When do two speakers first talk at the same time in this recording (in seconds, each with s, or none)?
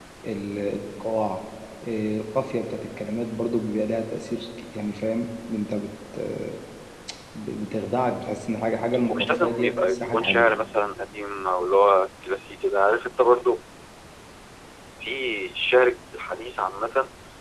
9.1 s